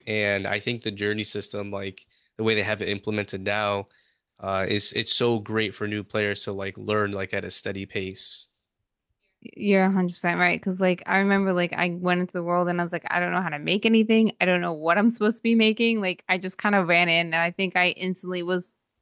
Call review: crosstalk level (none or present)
none